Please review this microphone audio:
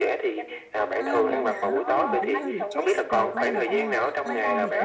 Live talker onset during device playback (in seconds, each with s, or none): 1.0 s